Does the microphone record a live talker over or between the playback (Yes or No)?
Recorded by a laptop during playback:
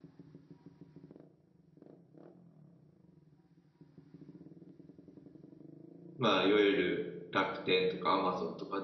Yes